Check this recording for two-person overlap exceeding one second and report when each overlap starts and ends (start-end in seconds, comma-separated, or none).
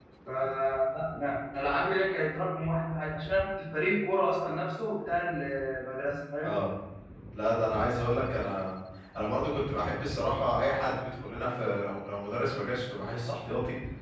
none